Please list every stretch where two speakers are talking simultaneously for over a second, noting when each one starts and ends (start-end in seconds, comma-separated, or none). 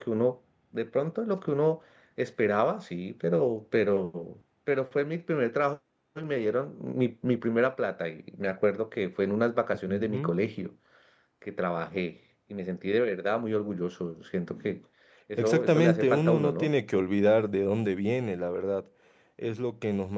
15.4-16.7